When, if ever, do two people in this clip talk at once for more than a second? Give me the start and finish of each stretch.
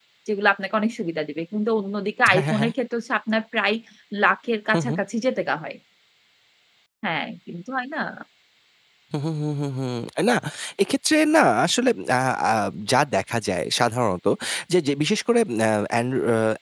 none

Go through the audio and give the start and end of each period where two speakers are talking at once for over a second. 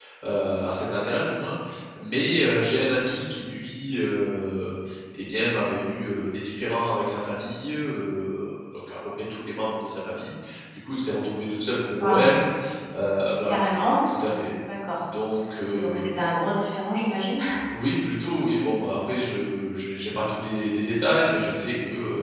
none

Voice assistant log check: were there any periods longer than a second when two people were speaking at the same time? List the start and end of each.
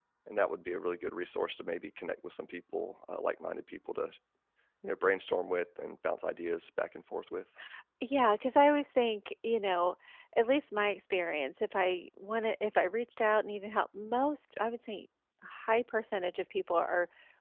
none

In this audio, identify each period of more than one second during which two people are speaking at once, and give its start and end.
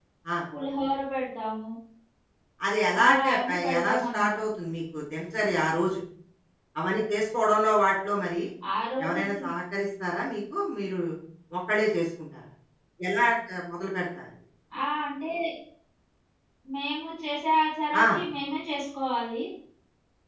3.0-4.4

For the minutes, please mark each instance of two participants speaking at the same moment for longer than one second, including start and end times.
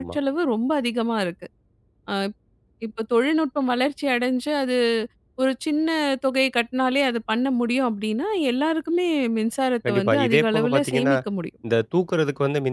9.9-11.1

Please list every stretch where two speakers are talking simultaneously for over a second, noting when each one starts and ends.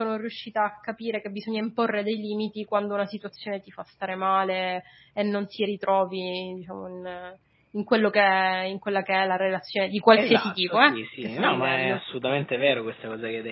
10.2-12.0

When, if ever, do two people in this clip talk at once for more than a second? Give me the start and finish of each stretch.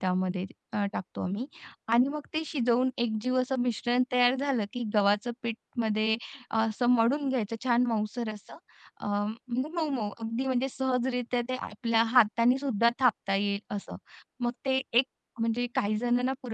none

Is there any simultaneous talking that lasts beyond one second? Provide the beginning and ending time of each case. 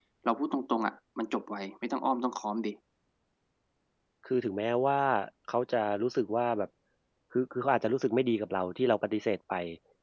none

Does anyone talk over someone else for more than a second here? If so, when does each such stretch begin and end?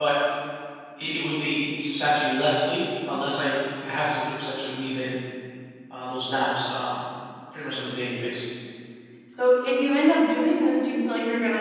none

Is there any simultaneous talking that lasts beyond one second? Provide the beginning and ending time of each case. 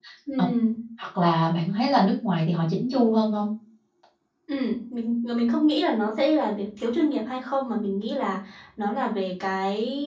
none

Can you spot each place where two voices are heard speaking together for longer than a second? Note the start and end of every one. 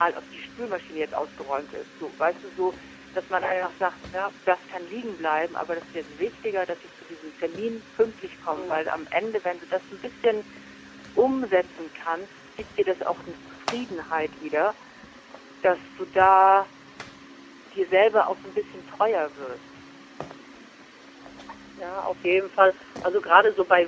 none

